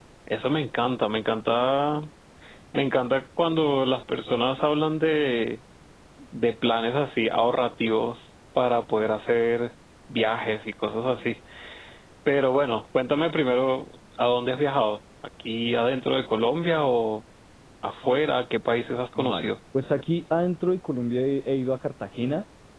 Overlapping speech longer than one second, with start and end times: none

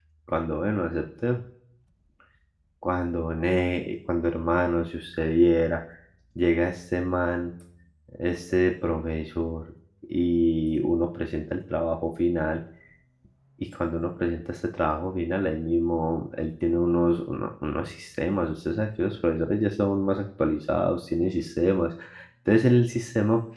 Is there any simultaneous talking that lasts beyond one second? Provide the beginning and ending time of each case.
none

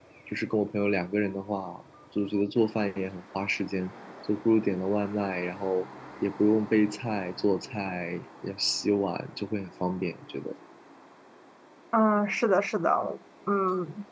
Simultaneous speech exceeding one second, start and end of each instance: none

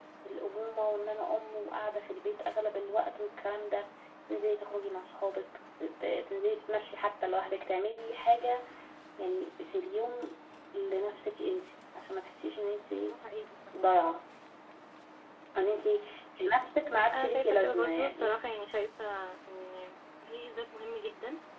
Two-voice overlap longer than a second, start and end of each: 16.9-18.4

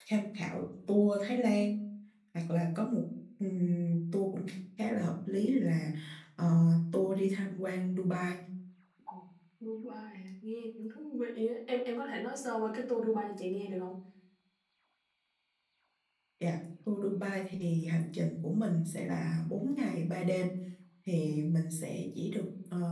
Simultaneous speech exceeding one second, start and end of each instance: none

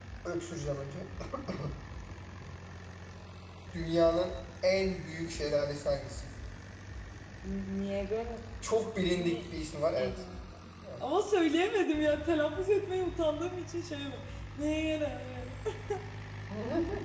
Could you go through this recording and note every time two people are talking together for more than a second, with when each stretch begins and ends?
none

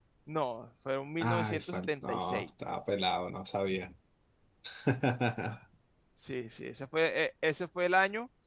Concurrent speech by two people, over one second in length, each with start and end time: 1.2-2.5

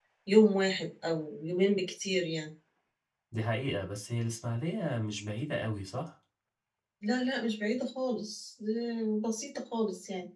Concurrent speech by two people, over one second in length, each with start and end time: none

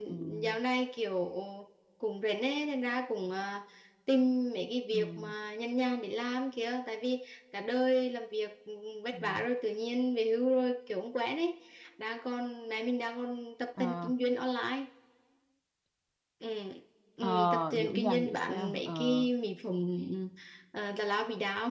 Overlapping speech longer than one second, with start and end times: 17.2-19.3

